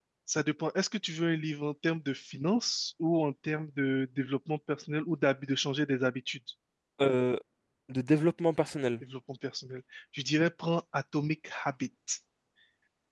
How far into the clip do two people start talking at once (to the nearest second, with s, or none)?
none